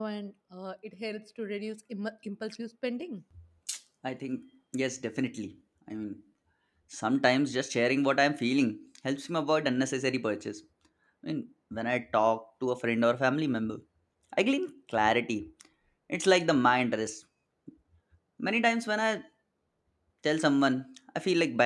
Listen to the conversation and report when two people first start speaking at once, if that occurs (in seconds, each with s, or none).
none